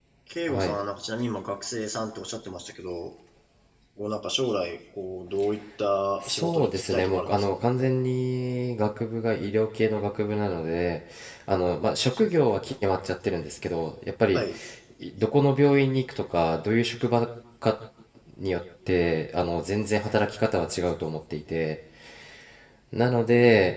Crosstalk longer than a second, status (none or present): present